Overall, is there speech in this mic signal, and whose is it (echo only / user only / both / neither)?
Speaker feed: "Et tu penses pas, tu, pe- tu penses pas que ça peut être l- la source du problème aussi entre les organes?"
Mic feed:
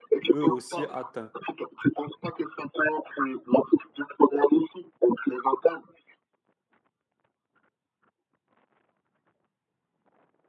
both